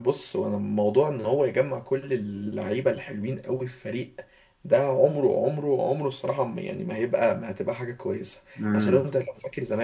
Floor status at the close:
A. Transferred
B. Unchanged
B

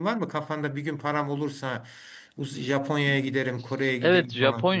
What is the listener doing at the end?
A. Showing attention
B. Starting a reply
B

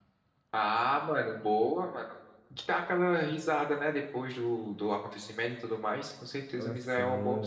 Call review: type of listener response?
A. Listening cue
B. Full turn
B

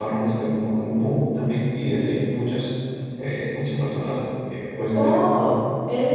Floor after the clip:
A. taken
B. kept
A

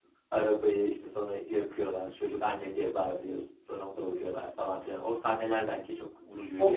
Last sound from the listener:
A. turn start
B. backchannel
A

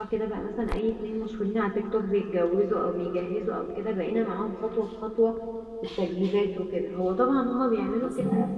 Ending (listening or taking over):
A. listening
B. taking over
A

